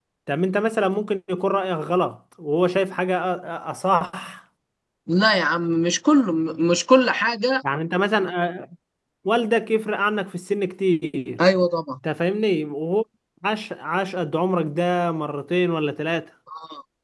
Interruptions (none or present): none